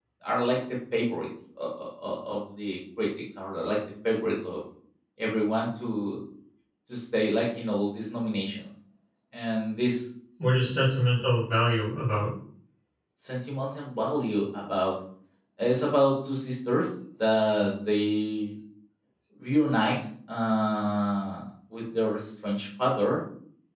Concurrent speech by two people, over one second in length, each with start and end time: none

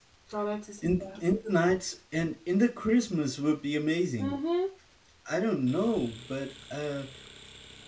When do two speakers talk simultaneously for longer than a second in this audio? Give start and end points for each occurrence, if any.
none

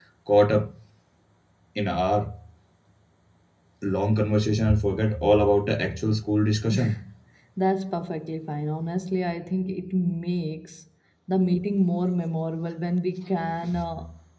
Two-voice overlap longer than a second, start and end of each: none

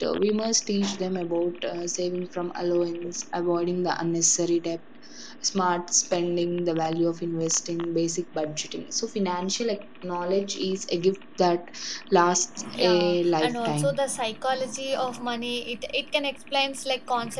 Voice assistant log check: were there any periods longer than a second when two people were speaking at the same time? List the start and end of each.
12.7-14.0

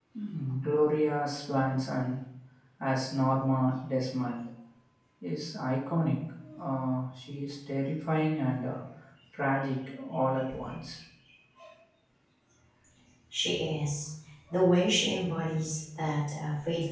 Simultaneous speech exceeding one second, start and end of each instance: none

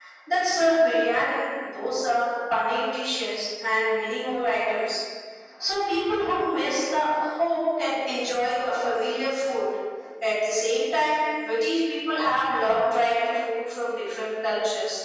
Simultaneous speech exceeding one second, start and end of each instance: none

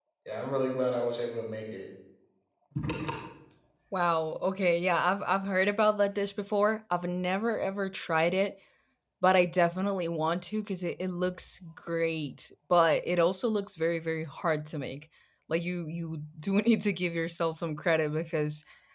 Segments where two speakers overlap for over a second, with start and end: none

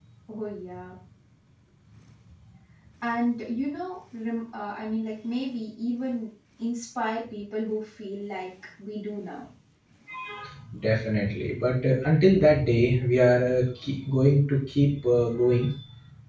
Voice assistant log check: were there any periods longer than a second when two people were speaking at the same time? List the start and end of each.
none

